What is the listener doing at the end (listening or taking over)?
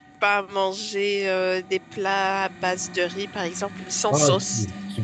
taking over